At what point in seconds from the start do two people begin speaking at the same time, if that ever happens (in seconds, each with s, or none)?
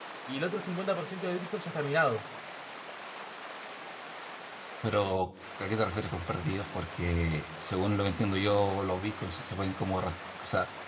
none